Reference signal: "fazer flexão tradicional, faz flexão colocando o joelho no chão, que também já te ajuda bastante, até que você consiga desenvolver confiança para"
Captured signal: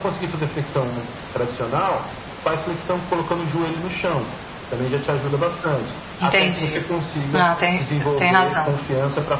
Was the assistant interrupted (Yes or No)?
Yes